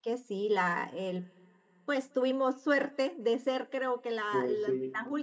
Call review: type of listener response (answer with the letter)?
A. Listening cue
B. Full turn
A